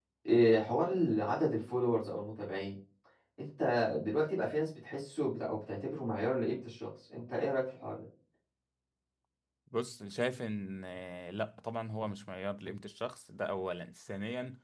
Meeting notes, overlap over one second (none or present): none